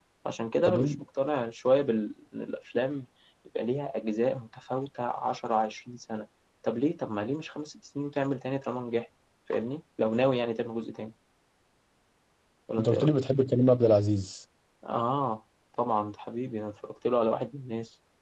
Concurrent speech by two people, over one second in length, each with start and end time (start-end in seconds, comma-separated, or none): none